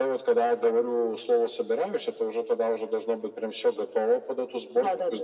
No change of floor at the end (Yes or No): Yes